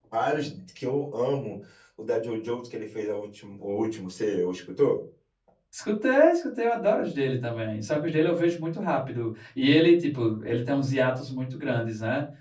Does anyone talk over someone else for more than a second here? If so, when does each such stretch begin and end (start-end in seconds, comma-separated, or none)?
none